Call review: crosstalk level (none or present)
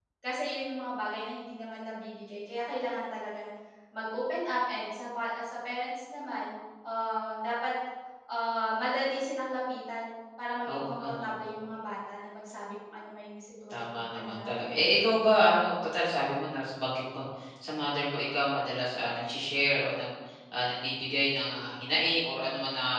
present